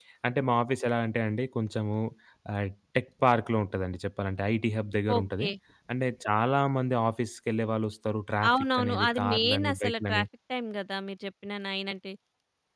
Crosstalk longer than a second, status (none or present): present